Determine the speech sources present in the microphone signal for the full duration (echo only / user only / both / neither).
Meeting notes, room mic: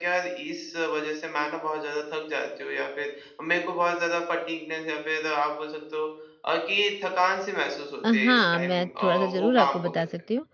both